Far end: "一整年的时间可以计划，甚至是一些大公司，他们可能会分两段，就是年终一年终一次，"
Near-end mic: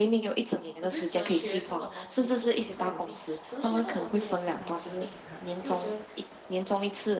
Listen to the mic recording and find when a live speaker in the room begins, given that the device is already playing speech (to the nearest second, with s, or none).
1 s